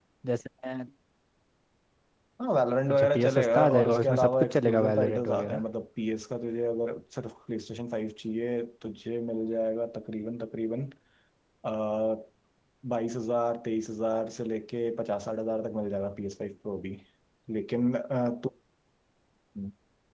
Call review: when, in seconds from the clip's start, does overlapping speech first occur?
2.9 s

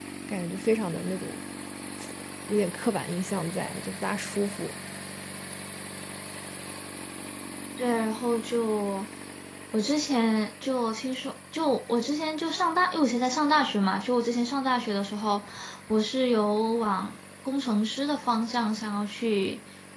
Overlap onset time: none

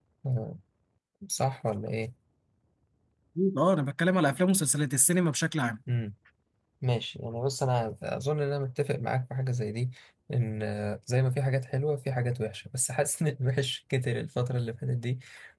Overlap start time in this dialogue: none

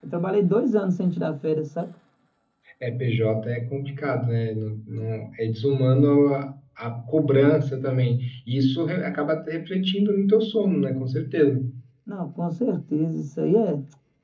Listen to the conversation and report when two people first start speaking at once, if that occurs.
none

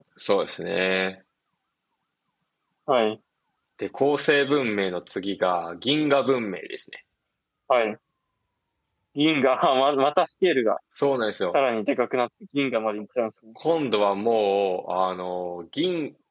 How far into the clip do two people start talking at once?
none

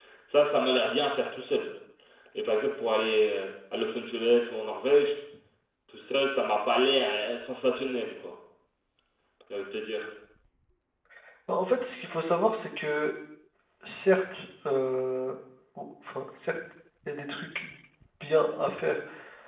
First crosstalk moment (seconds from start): none

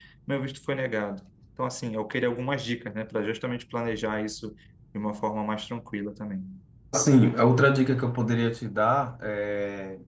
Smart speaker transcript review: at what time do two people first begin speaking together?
none

